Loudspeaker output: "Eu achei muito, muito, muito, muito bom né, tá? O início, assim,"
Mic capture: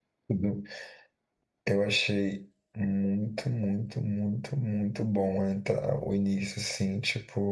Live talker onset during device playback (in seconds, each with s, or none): none